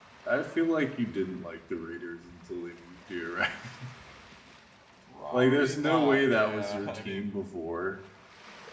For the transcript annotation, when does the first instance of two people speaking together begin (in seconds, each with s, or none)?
5.3 s